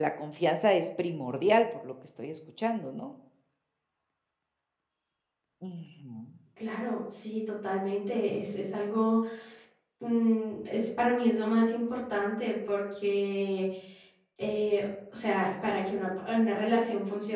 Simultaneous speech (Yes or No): No